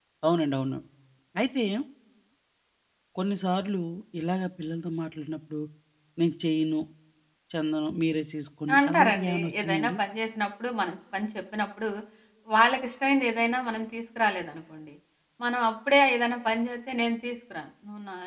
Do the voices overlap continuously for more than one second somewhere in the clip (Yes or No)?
Yes